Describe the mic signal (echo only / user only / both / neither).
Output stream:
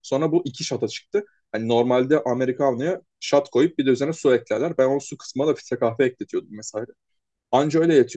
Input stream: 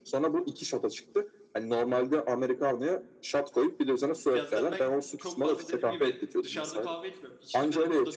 both